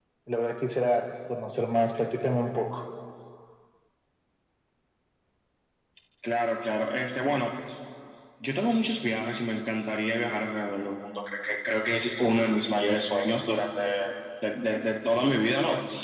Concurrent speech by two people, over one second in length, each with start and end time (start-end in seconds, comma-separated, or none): none